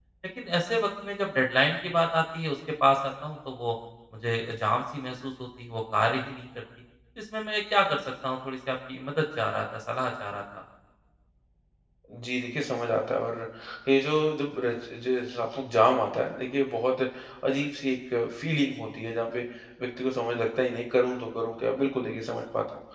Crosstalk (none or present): none